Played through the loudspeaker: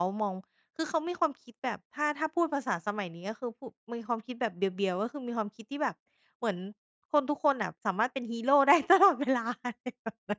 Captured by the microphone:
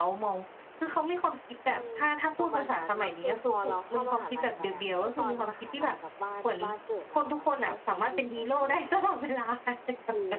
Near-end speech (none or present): present